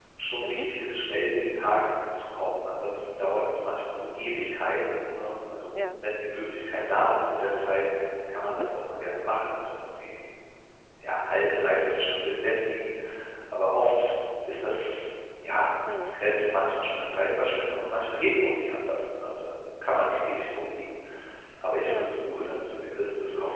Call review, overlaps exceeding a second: none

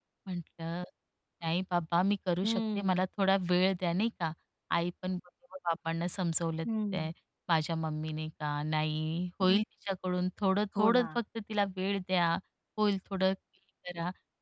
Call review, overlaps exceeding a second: none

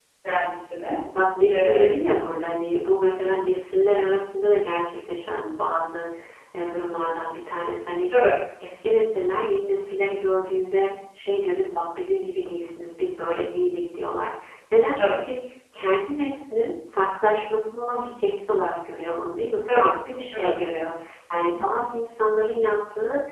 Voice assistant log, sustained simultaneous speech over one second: none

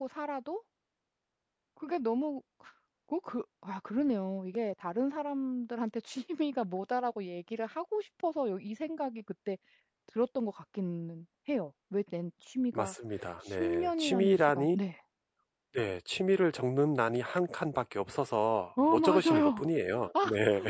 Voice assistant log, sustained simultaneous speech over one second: present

